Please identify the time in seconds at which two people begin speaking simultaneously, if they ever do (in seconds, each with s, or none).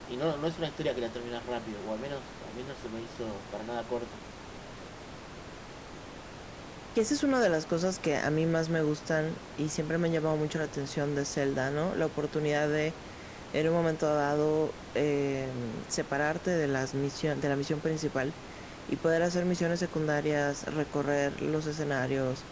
none